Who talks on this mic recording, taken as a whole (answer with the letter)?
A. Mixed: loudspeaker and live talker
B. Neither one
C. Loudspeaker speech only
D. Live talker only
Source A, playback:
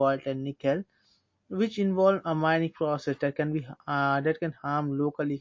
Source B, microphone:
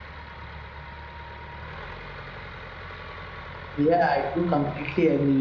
D